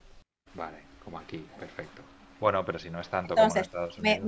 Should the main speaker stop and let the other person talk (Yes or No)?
Yes